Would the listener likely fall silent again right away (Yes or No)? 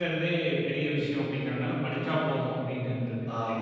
No